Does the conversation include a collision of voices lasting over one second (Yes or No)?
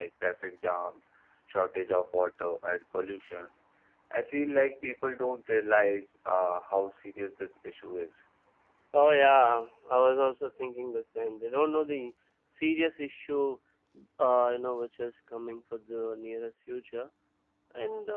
No